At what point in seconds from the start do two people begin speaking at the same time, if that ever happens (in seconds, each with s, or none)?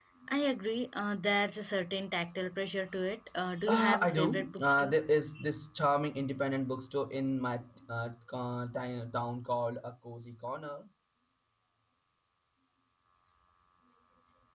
3.7 s